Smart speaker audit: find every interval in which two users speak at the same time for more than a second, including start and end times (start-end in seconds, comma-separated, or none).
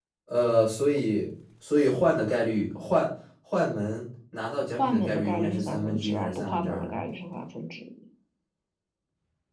4.7-7.0